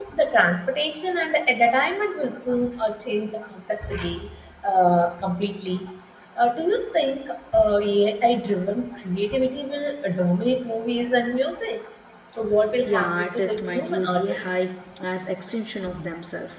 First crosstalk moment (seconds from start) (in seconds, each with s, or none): 12.9 s